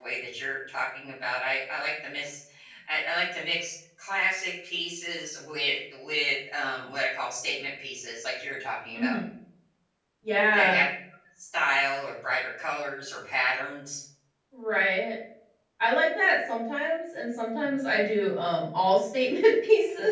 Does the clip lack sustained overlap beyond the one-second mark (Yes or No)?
Yes